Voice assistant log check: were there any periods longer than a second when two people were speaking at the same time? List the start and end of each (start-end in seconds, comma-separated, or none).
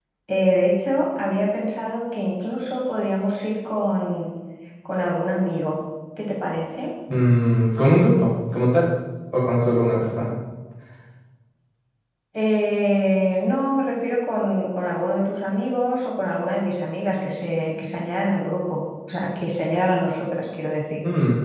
none